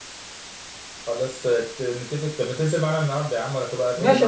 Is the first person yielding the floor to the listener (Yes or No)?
Yes